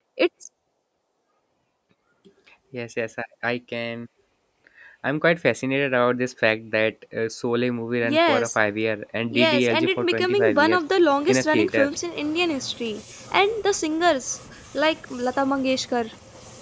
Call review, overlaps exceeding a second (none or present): present